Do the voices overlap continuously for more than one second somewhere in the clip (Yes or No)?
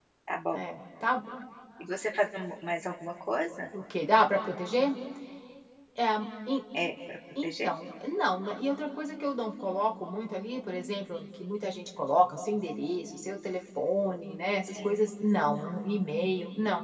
No